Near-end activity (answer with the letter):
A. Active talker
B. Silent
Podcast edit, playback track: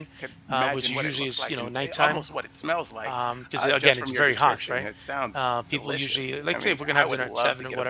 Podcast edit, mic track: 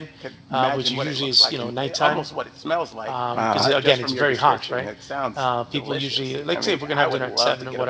A